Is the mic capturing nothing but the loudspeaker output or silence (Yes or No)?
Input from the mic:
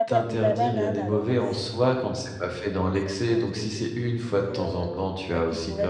No